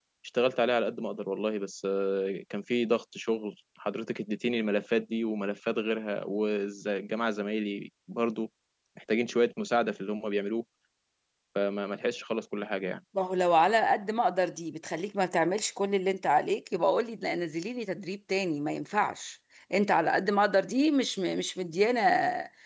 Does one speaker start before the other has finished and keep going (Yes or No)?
No